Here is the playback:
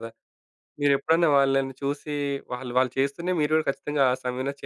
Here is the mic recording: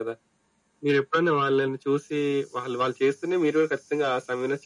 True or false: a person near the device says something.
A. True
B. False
B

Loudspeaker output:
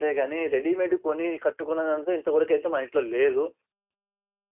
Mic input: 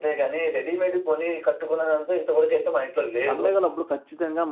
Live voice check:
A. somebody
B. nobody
A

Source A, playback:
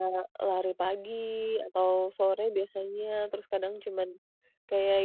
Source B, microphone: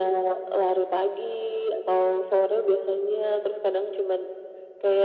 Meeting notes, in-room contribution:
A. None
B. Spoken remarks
A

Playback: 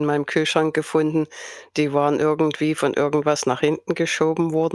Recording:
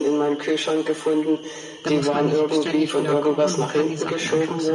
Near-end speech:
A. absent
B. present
B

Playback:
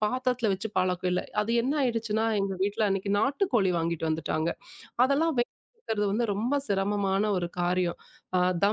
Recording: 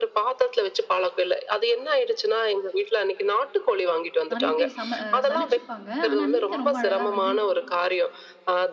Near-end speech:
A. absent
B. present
B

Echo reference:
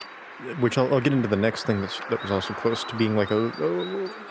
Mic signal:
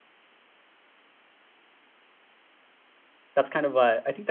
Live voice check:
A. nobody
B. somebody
B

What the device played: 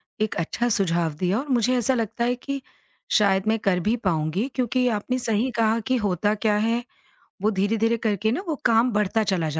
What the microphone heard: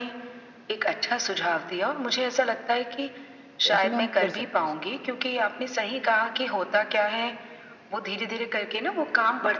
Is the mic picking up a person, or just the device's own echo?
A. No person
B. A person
B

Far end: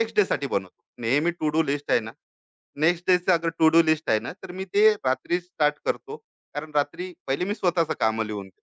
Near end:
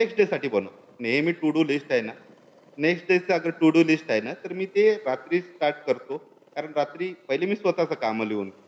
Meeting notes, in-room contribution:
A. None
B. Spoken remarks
A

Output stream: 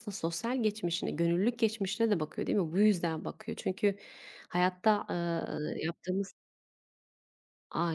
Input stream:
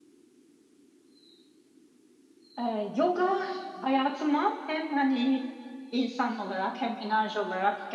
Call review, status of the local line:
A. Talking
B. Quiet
A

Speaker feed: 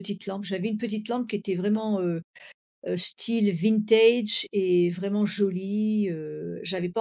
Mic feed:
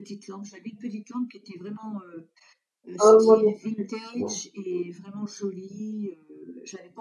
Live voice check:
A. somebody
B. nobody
A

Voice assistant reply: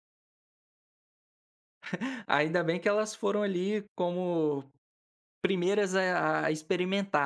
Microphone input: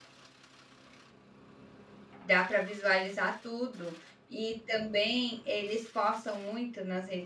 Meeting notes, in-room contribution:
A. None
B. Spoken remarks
B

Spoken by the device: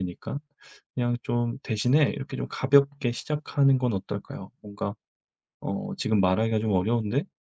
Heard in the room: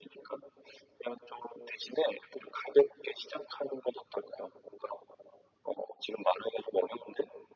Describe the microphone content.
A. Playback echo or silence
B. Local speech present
A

